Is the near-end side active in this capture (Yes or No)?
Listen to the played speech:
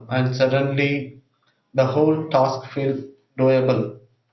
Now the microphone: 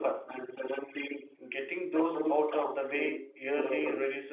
Yes